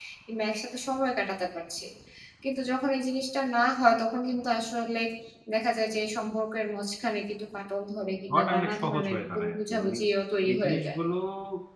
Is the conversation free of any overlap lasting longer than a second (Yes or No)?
No